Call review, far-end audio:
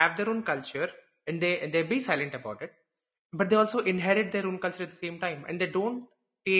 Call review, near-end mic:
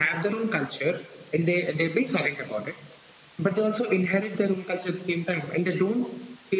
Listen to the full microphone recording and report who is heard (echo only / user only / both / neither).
echo only